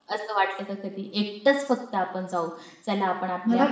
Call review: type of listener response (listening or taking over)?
listening